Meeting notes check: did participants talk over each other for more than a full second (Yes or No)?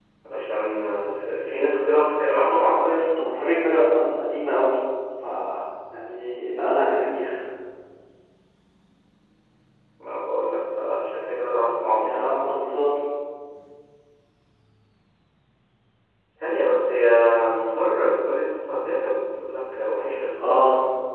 No